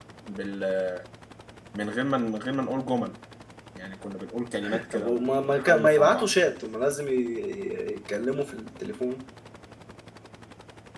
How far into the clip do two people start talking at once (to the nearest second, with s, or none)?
5 s